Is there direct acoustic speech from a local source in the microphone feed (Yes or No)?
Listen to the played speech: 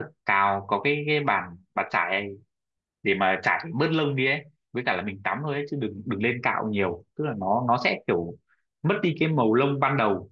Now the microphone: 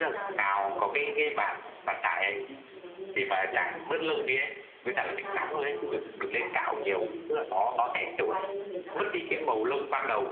Yes